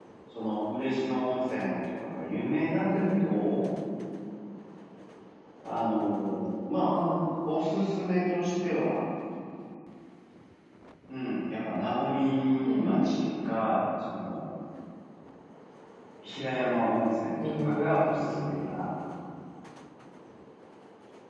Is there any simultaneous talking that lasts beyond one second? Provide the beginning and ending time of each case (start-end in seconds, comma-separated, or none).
17.4-18.7